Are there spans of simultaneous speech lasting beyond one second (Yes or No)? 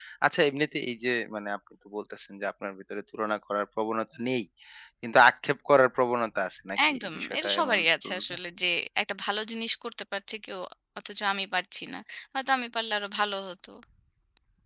Yes